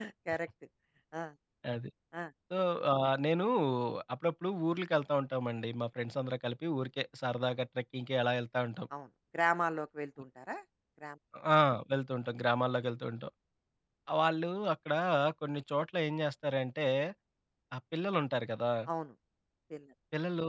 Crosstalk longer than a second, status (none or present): none